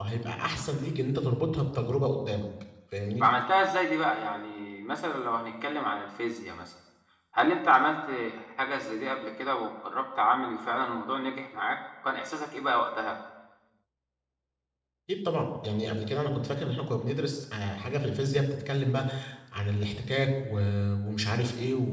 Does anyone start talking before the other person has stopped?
No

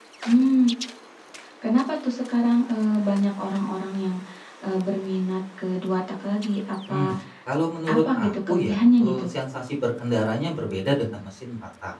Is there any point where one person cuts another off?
Yes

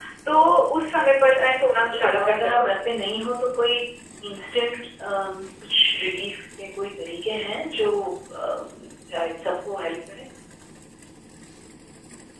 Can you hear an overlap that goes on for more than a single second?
Yes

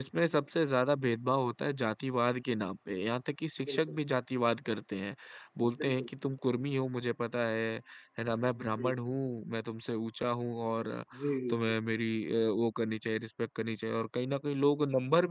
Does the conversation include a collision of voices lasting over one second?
No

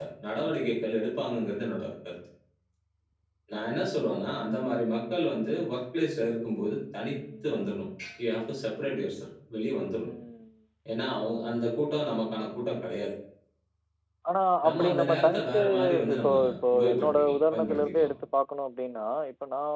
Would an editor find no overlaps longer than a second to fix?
No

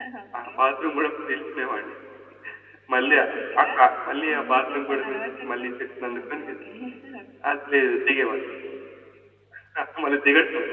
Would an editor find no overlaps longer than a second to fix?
No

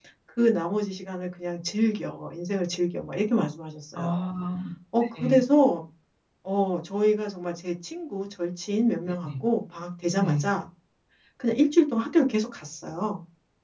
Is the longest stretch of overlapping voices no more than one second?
Yes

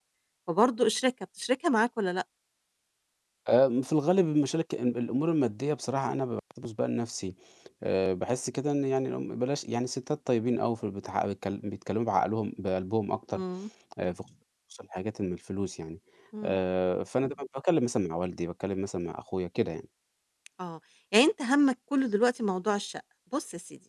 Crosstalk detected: No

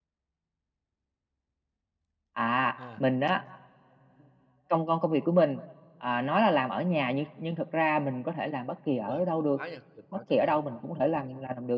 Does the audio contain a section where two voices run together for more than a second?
No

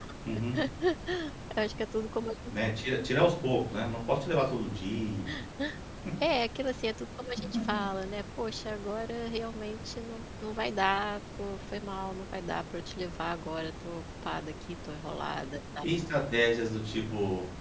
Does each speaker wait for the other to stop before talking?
Yes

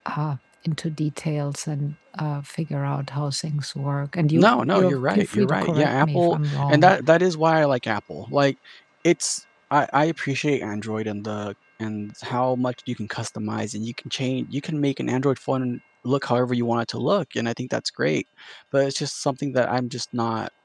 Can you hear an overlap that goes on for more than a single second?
Yes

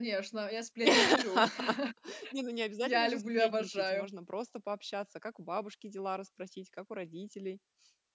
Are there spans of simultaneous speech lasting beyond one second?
Yes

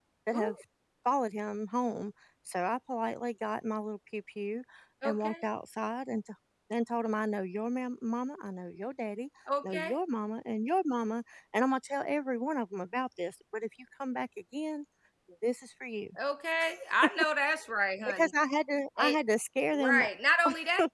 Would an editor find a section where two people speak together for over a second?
No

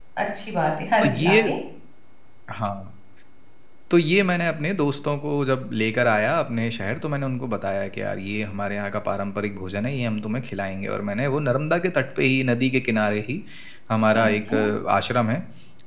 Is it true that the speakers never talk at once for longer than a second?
Yes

